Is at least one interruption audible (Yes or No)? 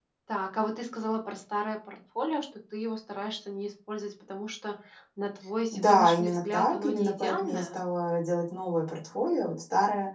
Yes